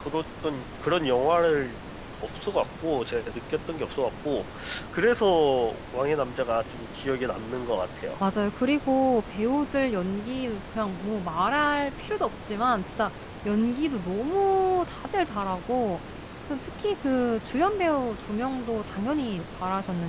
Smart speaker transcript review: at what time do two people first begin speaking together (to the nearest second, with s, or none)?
none